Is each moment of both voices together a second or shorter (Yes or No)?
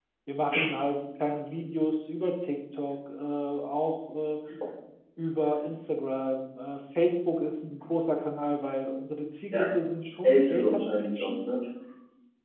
No